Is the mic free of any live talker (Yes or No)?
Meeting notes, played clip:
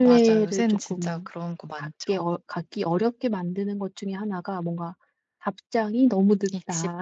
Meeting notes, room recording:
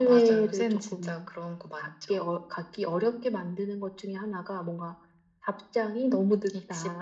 Yes